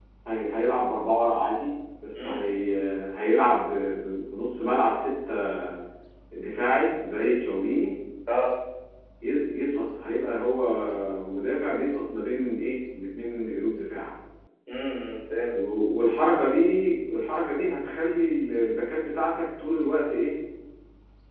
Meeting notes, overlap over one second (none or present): none